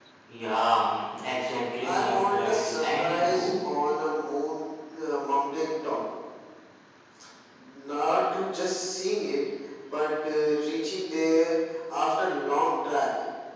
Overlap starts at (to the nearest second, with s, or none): 2 s